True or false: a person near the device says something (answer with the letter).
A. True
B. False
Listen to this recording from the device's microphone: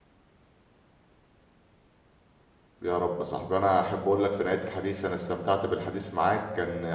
A